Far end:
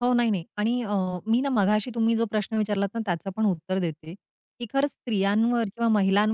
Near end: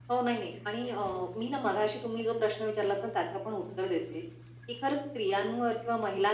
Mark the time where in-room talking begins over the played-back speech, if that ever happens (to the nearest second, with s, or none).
none